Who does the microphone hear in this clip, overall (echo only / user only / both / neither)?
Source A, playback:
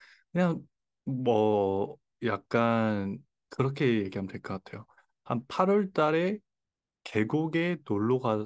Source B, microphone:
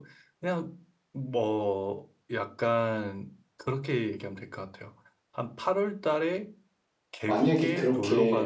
both